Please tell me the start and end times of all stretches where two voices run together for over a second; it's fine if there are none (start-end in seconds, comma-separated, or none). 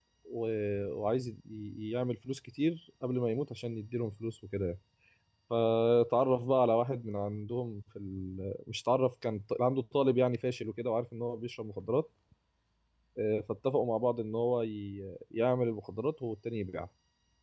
none